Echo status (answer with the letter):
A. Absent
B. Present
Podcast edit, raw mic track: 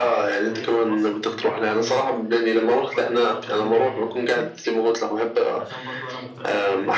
B